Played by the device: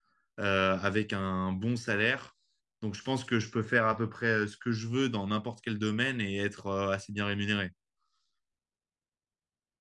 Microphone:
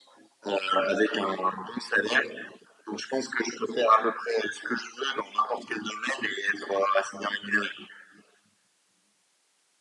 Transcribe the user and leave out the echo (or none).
none